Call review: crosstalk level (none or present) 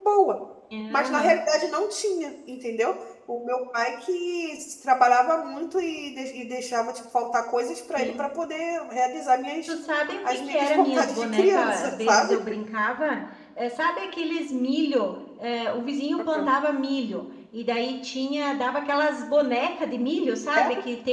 present